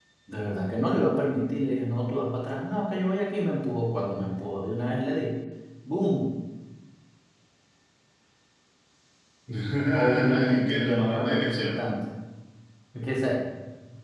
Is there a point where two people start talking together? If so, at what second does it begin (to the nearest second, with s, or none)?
10 s